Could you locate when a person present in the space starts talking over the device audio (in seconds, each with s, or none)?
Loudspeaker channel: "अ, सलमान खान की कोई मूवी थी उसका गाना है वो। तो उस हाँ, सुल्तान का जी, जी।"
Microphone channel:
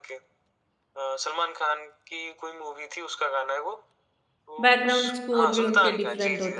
4.6 s